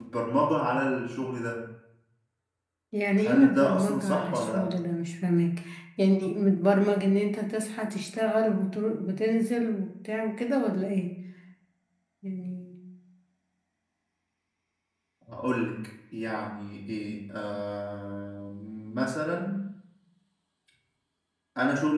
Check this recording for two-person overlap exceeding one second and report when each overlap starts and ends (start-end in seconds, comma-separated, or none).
3.2-4.7